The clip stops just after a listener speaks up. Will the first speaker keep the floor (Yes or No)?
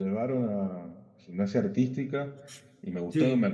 Yes